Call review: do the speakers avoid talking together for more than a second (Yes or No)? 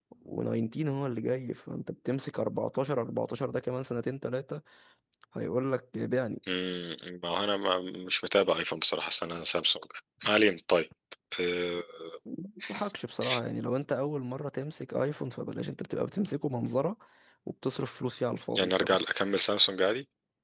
Yes